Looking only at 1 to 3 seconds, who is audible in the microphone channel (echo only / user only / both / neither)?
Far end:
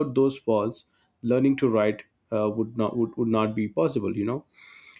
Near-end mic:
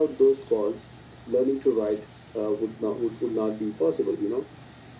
echo only